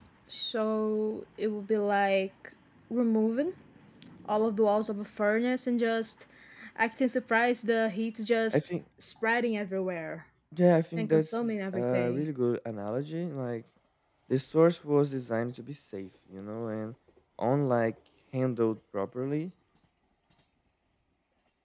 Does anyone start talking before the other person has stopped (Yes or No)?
Yes